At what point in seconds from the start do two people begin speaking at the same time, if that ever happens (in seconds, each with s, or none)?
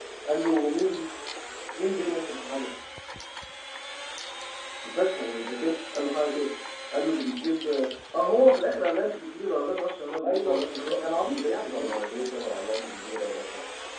10.2 s